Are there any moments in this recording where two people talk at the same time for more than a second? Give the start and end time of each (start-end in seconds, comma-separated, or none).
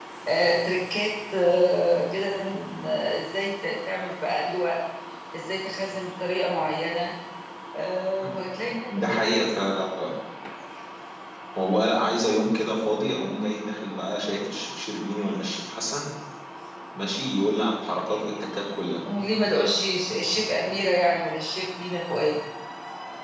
none